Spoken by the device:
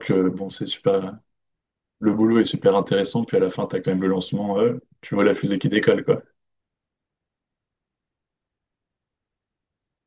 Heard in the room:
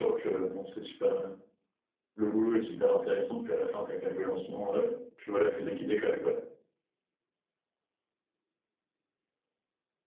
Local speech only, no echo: none

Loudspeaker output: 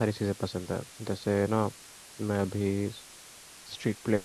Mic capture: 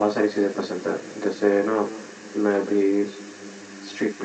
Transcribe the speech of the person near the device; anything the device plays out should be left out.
none

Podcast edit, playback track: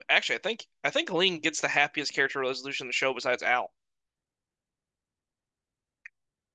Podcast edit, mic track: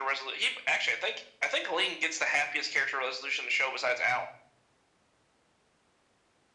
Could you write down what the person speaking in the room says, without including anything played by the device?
none

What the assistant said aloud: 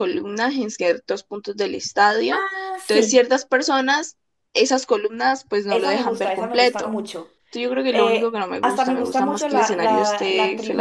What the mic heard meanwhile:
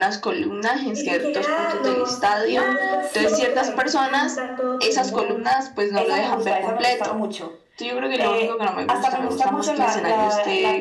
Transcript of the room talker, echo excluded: Ni siquiera los viejos, pues que son los que la gente canta a todo pulmón.

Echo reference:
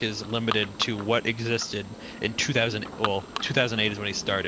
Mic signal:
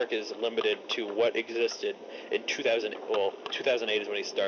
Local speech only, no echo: none

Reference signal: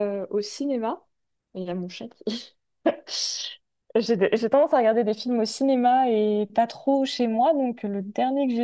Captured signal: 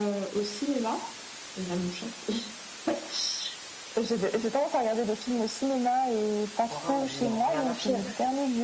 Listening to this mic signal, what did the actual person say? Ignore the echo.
conjoint me dit on regarde un film,

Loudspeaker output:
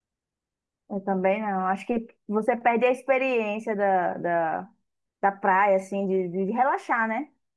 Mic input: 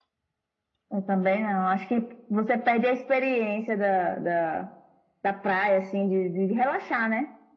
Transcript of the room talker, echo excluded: none

